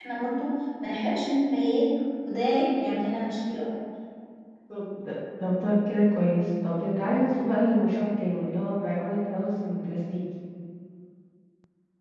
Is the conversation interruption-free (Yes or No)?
Yes